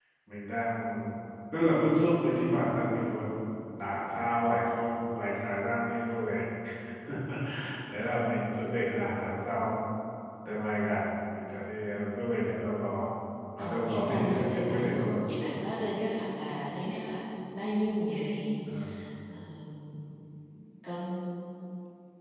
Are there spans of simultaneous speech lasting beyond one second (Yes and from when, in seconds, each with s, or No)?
Yes, from 13.6 s